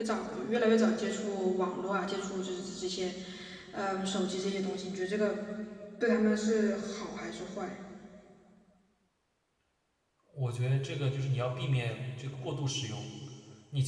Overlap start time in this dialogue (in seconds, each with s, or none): none